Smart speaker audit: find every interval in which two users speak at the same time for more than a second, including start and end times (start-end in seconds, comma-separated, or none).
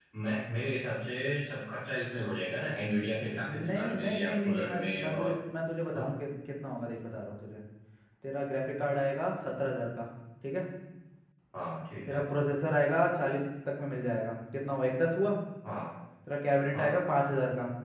3.5-5.3